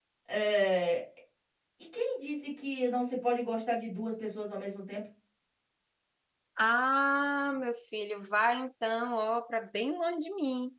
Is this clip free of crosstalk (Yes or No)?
Yes